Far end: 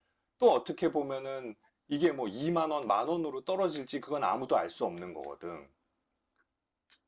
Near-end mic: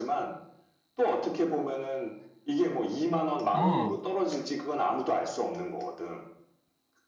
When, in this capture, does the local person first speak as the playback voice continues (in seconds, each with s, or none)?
3.5 s